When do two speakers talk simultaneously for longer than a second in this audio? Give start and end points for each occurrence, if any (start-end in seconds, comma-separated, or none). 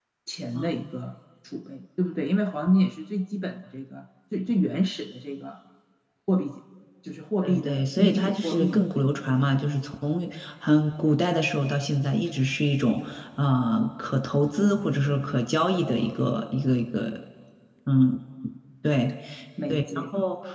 7.4-8.9